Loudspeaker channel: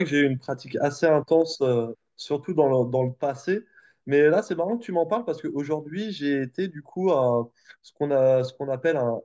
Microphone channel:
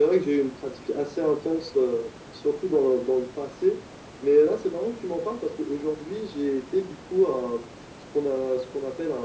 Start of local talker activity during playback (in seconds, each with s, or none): none